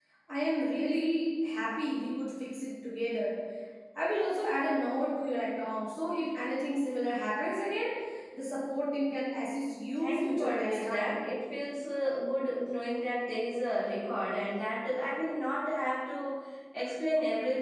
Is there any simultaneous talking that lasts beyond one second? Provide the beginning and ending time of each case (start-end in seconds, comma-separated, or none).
10.0-11.3